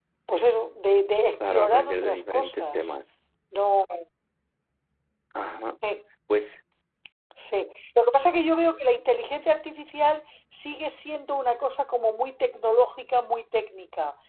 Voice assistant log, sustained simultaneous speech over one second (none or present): present